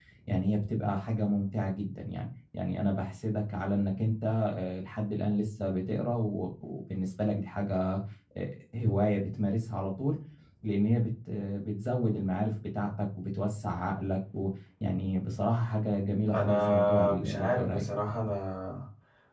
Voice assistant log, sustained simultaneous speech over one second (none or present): present